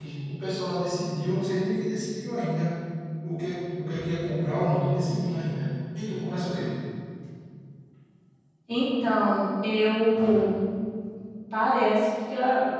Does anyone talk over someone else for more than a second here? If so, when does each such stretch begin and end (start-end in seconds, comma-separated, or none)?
none